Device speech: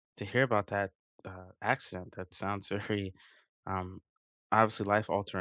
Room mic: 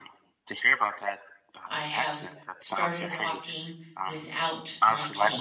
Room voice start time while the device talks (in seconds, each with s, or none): 1.7 s